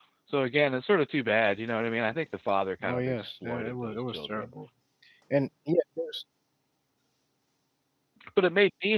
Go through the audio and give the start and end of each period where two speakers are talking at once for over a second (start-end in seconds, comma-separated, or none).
2.8-4.5